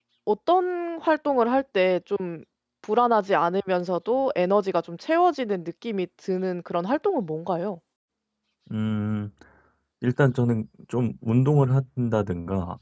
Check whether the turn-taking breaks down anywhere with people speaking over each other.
No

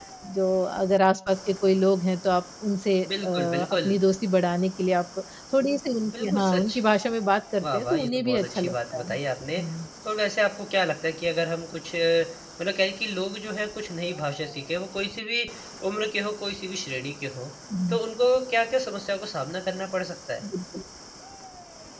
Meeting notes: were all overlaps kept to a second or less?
No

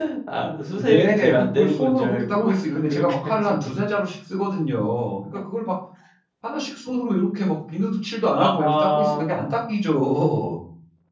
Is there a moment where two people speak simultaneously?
Yes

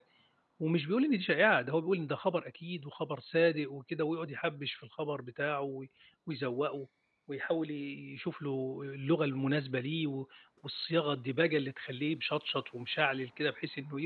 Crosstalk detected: No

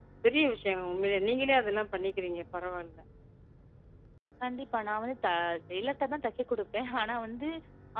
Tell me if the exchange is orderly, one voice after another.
Yes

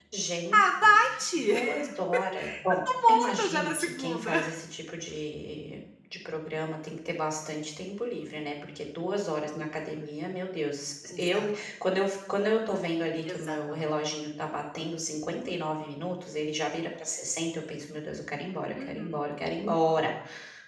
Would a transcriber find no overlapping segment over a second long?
No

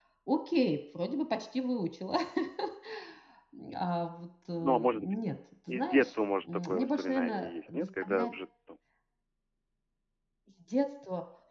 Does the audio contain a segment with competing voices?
Yes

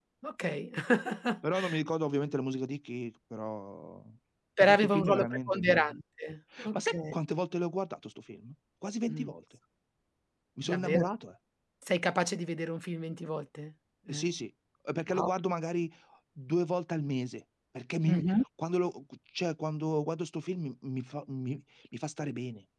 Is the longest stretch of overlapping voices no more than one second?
No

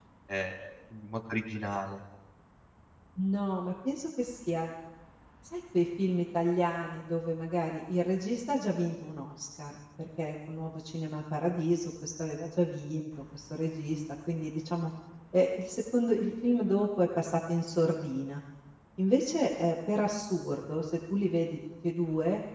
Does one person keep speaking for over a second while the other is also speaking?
No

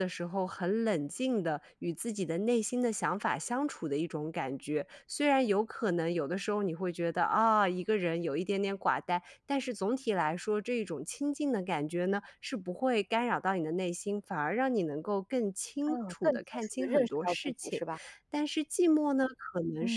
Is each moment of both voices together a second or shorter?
No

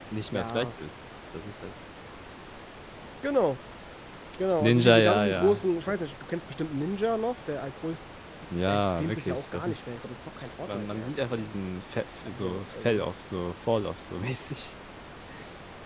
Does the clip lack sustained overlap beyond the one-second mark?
No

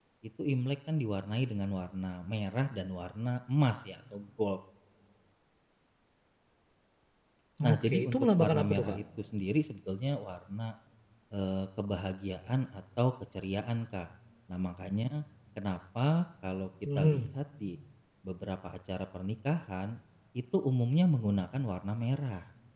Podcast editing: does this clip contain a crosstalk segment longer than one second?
Yes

